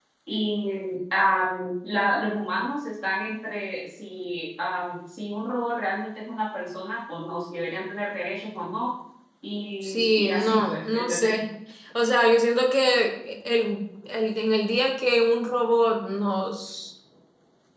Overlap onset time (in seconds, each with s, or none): 9.8 s